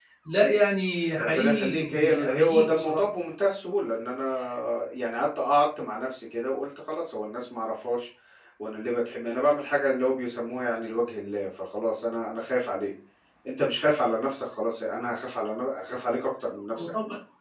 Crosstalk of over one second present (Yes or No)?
Yes